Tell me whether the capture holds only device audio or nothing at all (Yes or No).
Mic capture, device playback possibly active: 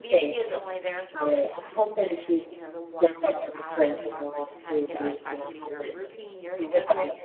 No